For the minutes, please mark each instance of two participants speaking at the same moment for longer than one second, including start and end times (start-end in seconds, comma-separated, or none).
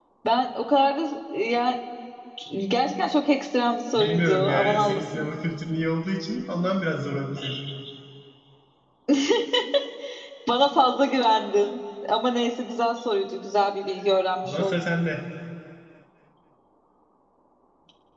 4.0-5.3